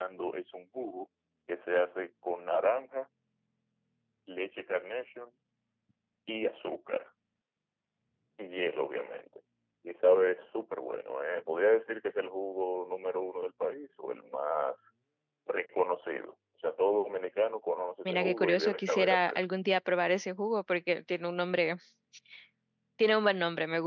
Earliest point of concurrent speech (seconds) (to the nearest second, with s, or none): 18 s